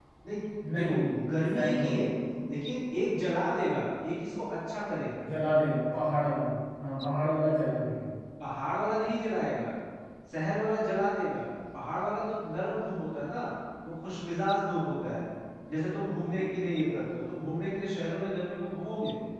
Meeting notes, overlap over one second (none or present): present